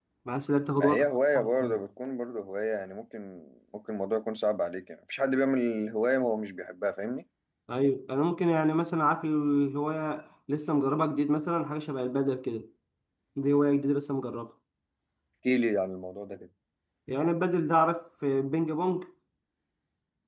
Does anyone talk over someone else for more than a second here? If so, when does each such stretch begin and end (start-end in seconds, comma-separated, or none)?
none